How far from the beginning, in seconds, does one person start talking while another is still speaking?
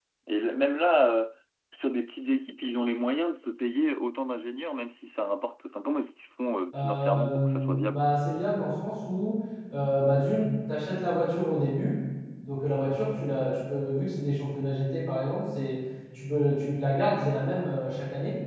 7 s

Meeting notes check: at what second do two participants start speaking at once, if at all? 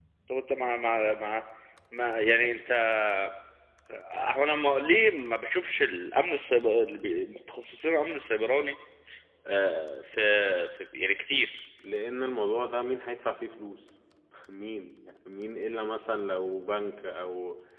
none

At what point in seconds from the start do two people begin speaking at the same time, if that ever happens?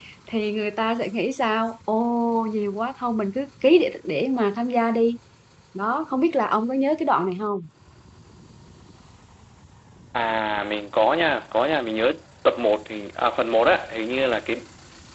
none

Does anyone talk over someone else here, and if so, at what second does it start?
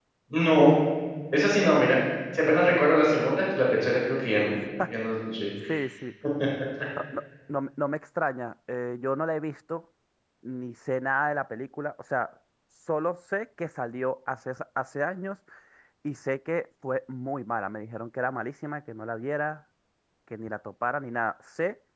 none

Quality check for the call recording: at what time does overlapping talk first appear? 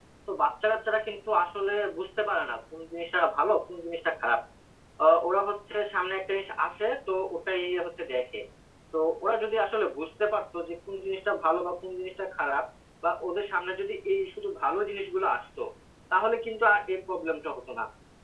none

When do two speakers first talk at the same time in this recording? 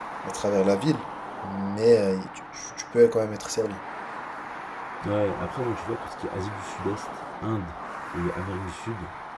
none

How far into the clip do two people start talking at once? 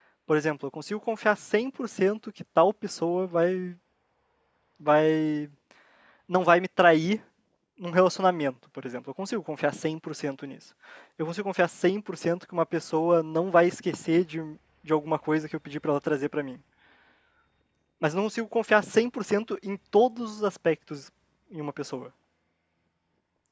none

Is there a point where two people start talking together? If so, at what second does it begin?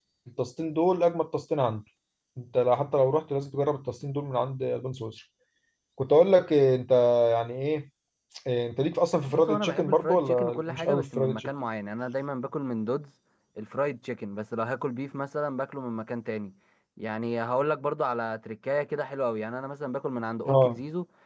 9 s

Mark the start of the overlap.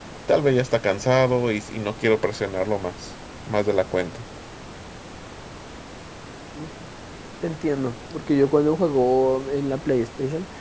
none

